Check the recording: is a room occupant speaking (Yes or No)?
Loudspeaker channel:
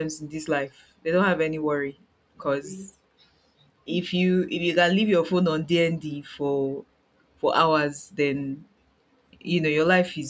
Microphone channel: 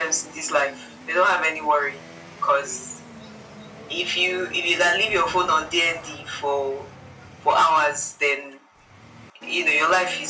No